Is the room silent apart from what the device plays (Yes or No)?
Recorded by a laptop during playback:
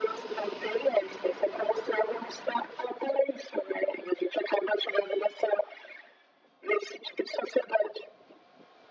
Yes